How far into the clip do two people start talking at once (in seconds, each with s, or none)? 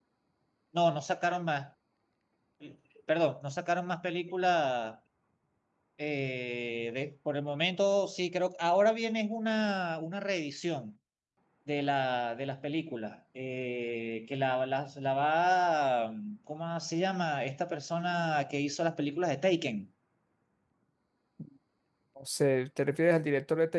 none